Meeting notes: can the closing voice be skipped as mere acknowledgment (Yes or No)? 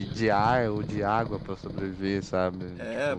No